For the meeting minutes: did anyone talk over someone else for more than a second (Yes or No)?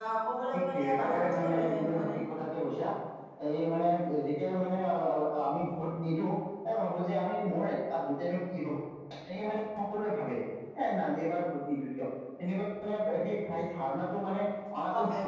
Yes